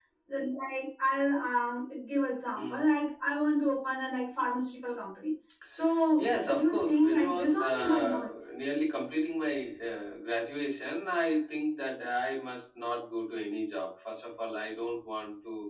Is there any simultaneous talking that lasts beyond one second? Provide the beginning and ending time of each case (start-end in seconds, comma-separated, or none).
6.2-8.3